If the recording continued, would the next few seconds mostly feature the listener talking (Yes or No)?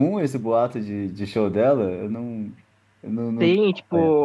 Yes